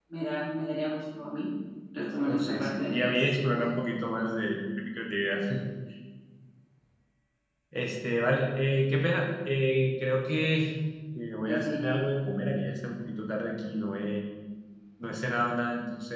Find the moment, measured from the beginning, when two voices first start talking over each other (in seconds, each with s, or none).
2.2 s